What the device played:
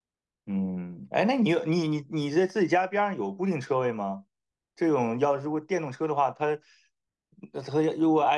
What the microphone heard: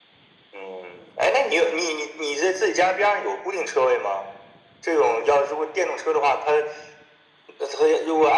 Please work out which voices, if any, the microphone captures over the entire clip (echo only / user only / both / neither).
echo only